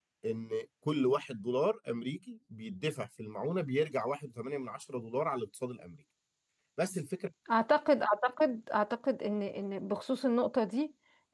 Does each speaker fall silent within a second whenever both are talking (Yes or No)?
Yes